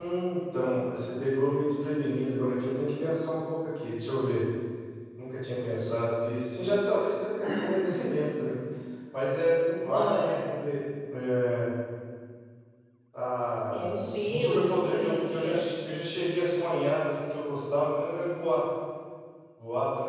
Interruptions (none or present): present